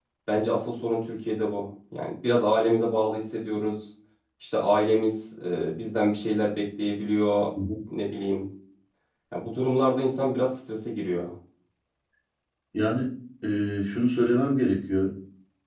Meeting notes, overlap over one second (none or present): none